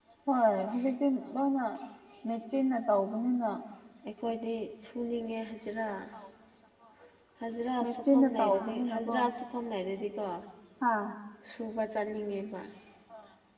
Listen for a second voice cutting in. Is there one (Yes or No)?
Yes